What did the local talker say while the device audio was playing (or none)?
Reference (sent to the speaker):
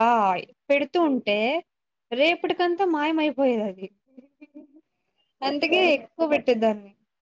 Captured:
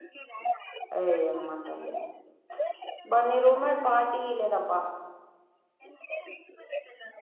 అయొమ్మా తల్లి ప్చ్ బా నీ రూమ్మేట్ పార్టీ ఈ లేదేబ్బా